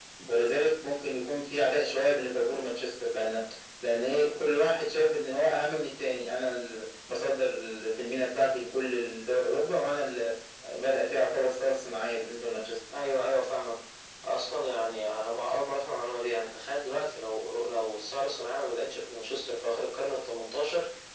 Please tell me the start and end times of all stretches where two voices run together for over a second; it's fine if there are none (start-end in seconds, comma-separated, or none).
none